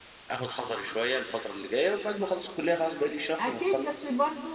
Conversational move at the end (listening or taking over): taking over